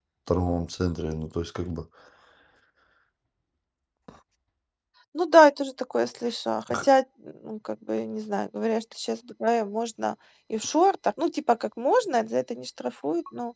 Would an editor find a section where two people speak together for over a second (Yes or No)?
No